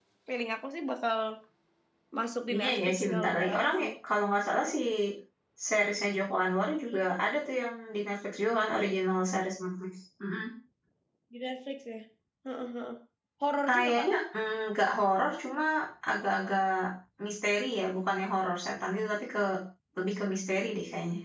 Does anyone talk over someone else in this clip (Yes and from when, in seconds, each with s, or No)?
Yes, from 2.5 s